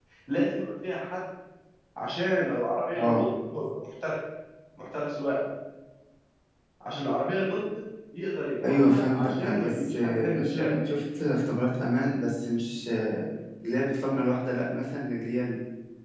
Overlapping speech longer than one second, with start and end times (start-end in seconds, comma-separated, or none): 8.7-10.8